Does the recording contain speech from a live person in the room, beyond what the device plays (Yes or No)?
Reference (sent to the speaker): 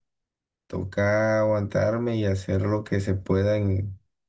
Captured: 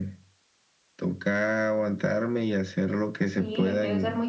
Yes